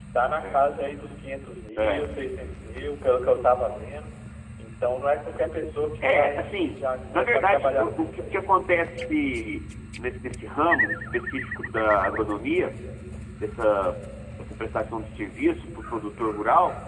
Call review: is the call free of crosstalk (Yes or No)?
No